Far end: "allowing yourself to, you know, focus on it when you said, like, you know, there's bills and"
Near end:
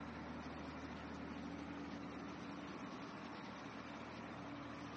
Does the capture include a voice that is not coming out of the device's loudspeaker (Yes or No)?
No